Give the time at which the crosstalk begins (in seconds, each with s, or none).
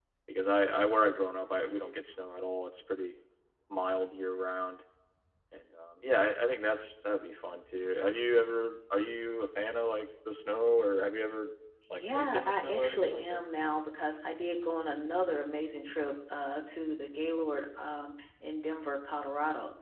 11.9 s